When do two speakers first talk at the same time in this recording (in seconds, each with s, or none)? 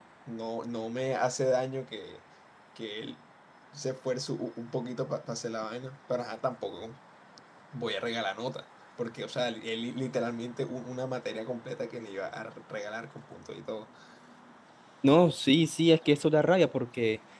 none